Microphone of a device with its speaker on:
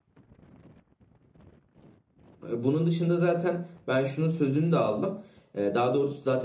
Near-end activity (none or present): present